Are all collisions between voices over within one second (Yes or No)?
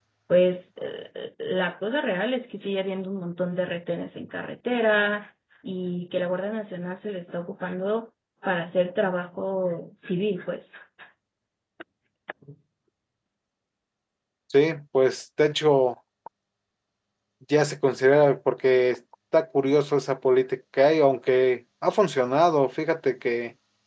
Yes